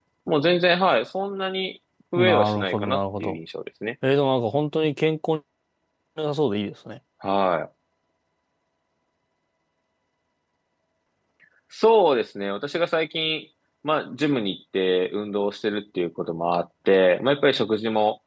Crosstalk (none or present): present